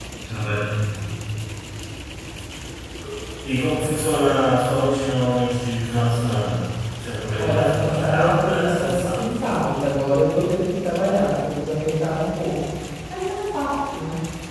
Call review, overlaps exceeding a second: present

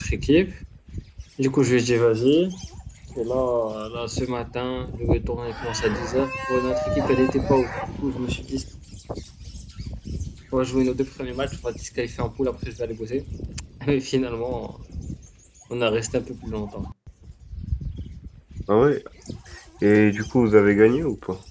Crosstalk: none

